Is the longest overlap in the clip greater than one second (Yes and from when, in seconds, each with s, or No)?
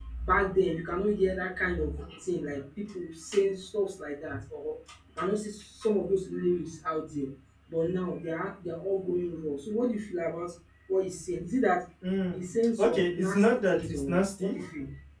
Yes, from 12.8 s